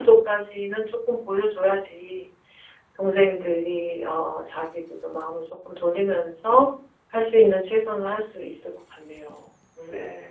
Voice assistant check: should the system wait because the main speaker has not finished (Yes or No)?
No